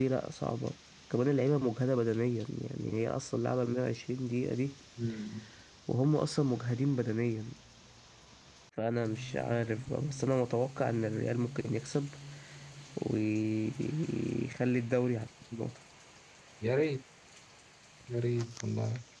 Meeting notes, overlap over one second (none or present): none